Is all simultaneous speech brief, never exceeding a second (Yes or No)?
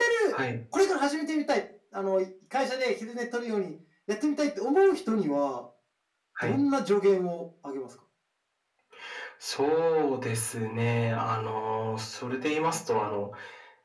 Yes